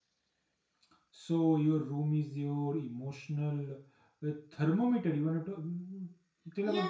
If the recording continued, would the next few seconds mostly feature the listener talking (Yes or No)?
Yes